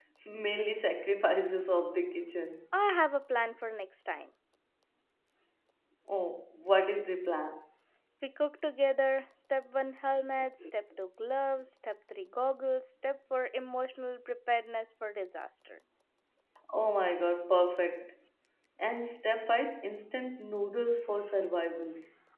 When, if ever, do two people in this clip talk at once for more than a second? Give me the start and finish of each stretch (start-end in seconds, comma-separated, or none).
none